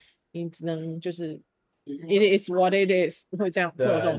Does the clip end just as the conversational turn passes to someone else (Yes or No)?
Yes